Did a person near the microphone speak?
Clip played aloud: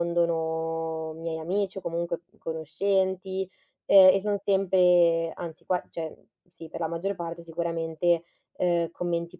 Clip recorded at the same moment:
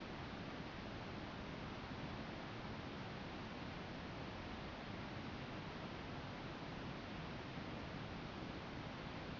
No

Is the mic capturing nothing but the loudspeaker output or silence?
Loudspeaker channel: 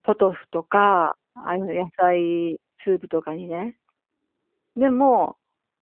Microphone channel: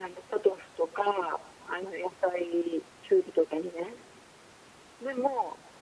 Yes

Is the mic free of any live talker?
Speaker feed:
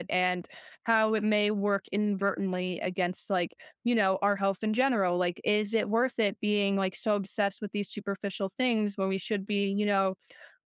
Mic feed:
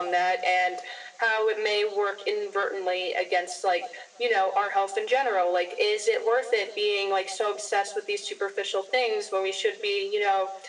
Yes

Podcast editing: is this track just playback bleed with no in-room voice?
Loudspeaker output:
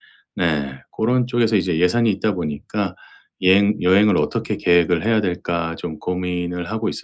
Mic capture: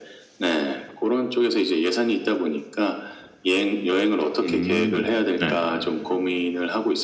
No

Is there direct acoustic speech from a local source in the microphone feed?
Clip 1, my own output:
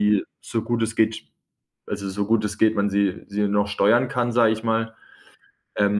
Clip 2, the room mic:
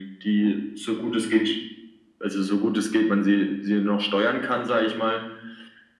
No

